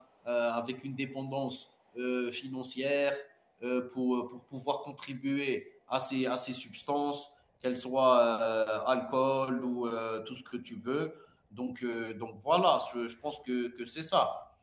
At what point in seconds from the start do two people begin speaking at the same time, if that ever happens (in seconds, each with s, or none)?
none